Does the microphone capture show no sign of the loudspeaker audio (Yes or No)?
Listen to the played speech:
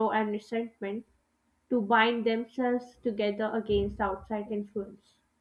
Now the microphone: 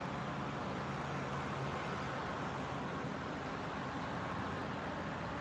Yes